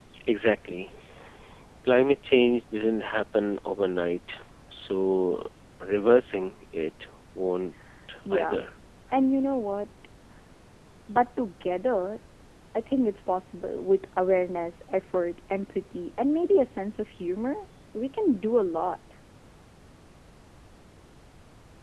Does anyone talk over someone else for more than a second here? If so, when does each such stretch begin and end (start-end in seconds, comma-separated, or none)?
none